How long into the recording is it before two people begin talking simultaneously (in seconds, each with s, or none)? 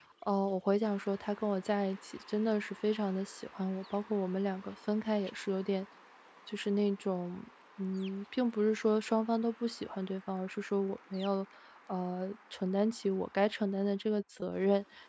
none